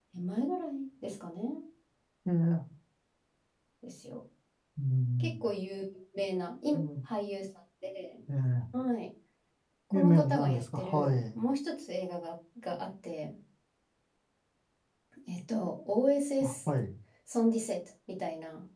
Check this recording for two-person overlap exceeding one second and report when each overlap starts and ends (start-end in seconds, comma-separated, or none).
9.9-11.4